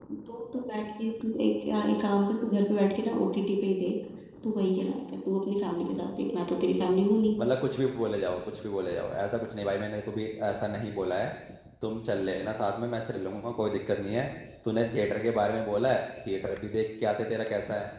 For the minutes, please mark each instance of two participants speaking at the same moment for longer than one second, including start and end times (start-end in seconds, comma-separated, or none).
none